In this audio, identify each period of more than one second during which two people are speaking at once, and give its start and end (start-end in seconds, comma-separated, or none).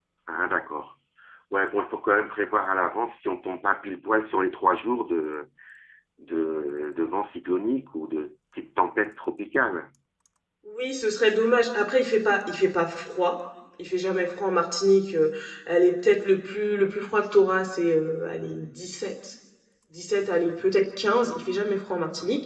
none